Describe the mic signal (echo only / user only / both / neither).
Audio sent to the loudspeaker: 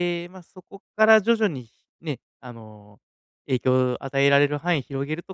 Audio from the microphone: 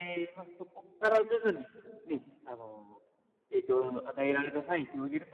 echo only